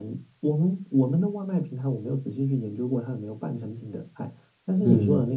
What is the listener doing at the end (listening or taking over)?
listening